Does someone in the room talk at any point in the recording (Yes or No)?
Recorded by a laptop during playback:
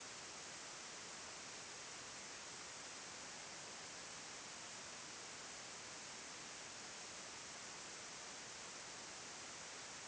No